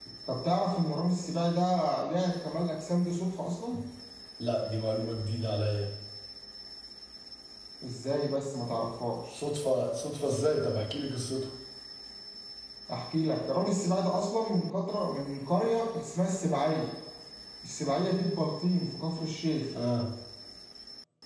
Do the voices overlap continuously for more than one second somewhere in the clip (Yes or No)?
No